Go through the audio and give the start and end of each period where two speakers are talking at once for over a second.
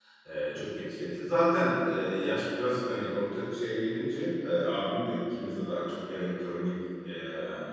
none

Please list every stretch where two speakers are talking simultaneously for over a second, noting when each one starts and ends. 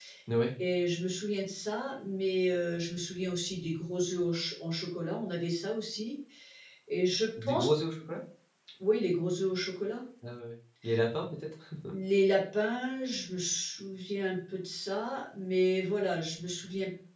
none

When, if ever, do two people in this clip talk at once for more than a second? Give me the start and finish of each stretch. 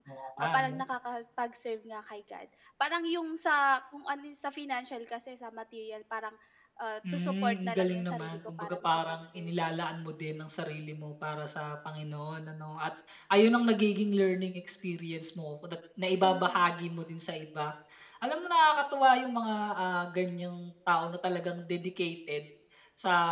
7.1-9.5

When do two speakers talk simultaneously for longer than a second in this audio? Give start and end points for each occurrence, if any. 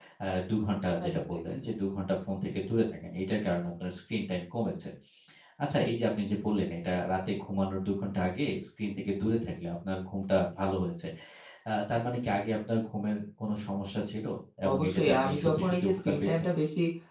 14.7-16.3

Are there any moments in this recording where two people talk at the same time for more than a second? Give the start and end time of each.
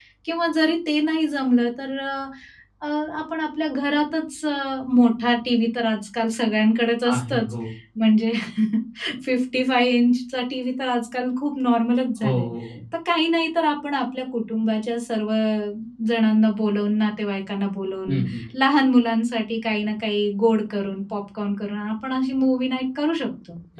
none

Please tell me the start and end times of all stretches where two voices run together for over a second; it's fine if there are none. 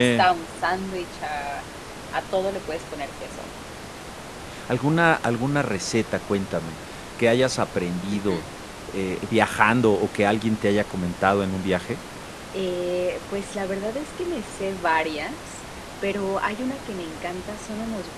none

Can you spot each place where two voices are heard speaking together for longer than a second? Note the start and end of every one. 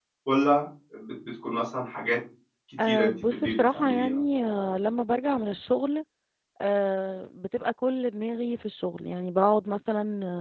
2.9-4.2

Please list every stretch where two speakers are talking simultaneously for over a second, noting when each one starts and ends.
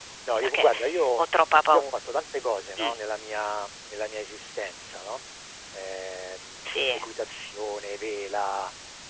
none

